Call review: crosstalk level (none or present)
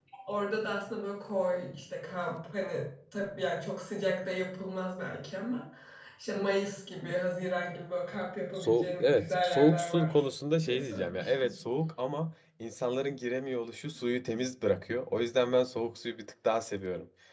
present